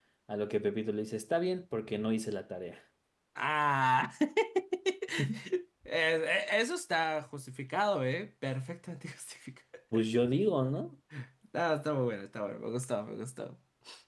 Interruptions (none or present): none